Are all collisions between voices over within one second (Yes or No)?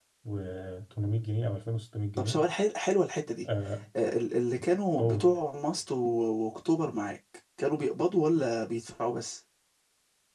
Yes